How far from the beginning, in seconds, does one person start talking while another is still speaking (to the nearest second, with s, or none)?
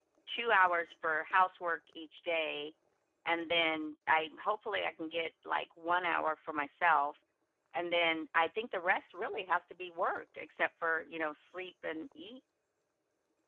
none